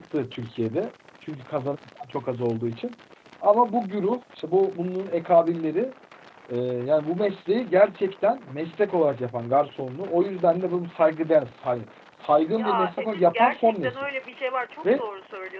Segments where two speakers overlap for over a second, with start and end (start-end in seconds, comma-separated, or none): 12.5-14.0